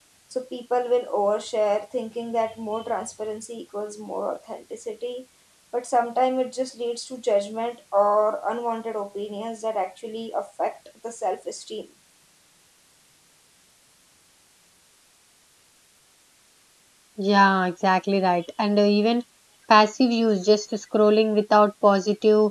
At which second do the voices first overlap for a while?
none

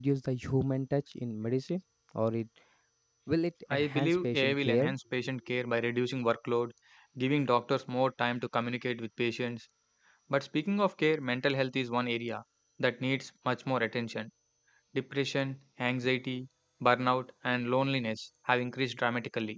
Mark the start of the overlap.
3.7 s

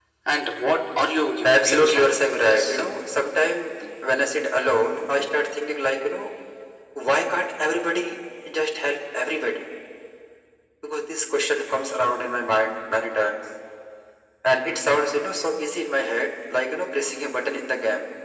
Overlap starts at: 1.4 s

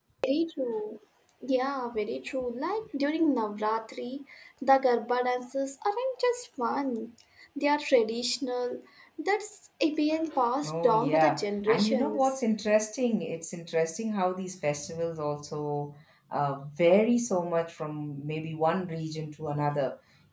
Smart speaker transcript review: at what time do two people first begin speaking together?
10.6 s

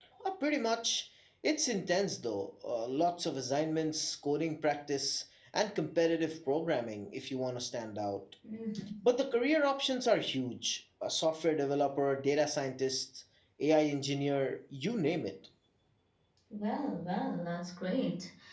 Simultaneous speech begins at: none

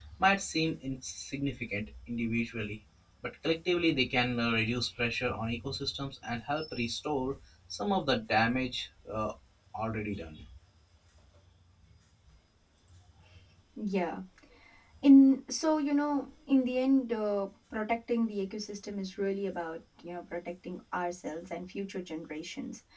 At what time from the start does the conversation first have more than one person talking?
none

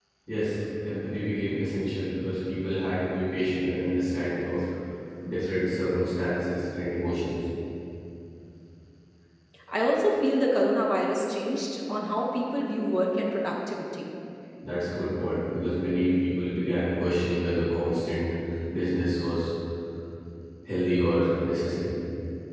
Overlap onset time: none

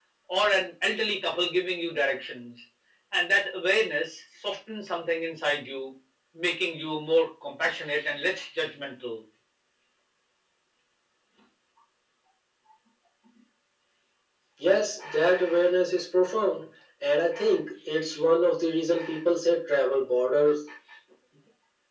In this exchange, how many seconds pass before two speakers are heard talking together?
none

